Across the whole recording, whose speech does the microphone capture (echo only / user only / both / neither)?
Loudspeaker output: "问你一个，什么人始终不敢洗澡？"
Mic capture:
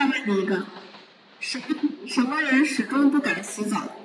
echo only